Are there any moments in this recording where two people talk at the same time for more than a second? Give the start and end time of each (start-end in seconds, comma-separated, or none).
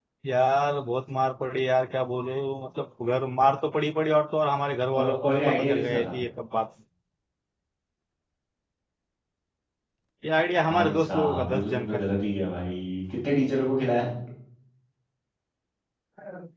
4.9-6.2, 10.7-12.0